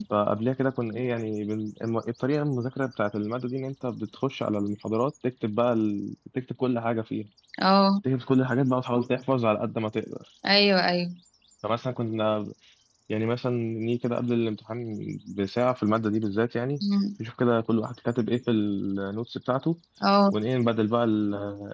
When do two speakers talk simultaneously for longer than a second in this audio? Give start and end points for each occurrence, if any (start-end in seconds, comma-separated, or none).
none